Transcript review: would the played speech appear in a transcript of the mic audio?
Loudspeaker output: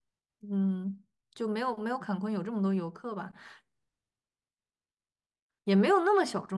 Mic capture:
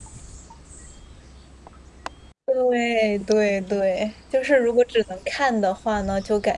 No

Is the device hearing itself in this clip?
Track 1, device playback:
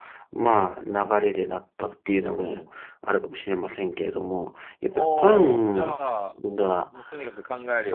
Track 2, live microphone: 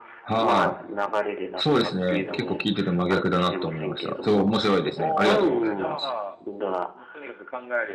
Yes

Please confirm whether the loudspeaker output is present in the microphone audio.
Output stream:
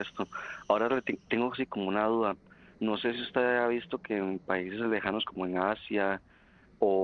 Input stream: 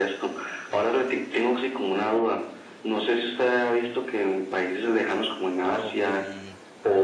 Yes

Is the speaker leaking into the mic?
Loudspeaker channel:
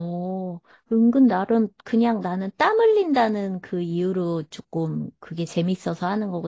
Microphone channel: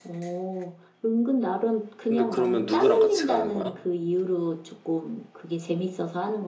Yes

